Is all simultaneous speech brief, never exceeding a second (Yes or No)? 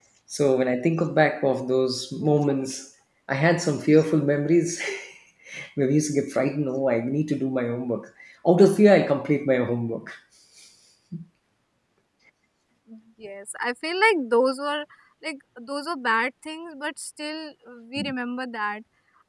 Yes